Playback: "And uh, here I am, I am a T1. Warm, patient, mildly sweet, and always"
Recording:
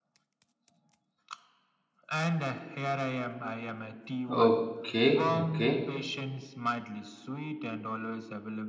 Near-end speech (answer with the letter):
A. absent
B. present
B